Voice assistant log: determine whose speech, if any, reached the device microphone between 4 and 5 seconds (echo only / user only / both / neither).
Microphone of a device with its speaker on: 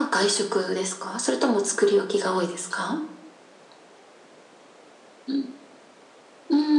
neither